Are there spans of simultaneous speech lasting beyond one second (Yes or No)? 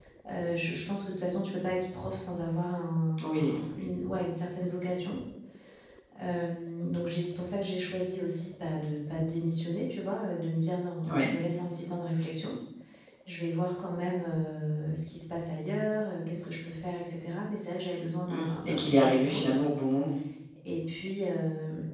Yes